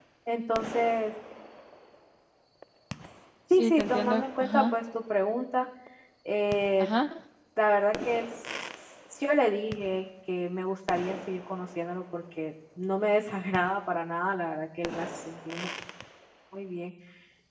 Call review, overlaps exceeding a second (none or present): present